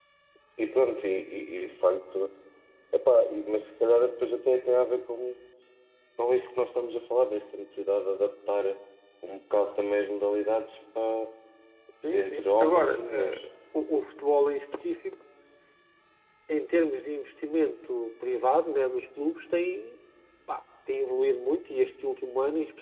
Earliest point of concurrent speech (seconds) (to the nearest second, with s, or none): 12 s